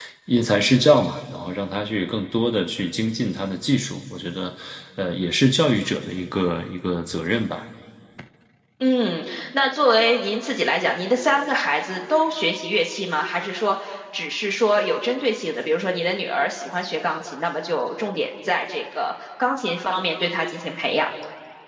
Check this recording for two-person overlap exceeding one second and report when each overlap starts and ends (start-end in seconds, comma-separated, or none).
none